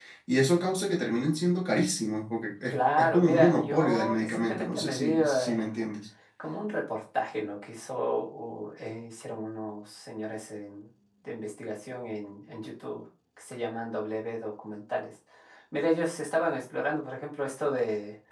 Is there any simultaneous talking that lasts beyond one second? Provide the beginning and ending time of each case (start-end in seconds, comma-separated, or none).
2.7-5.7